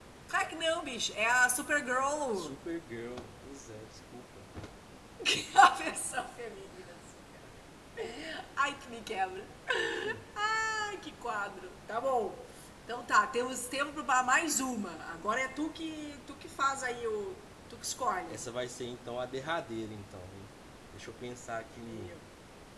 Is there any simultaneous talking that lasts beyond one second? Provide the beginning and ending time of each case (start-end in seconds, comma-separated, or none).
none